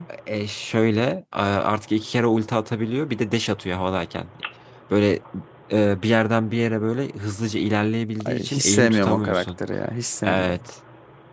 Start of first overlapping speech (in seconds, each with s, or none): 8.2 s